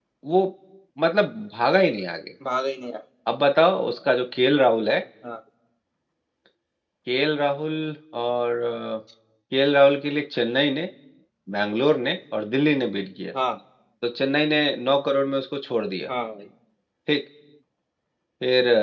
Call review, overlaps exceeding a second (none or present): none